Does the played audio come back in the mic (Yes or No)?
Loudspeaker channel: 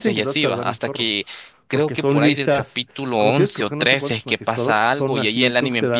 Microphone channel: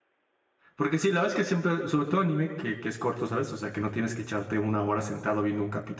No